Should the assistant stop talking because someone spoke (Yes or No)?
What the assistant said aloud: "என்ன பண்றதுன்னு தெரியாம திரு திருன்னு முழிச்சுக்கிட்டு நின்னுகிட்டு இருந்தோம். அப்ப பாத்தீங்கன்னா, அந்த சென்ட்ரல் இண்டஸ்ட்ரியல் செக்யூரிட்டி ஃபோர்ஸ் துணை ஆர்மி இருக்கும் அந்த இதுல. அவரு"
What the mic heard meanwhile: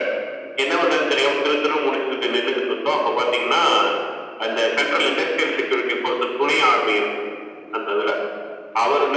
No